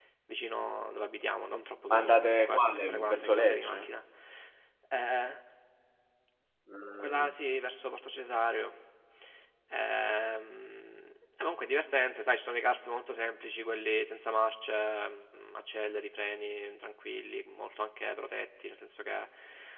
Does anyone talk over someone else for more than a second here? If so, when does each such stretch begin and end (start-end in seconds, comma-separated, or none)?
1.9-3.8